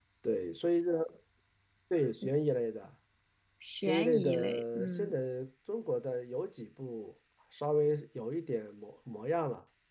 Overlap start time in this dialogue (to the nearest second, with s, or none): 4 s